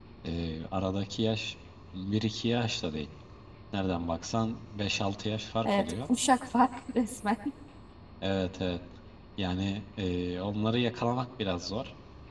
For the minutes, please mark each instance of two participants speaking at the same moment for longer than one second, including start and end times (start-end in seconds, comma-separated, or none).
none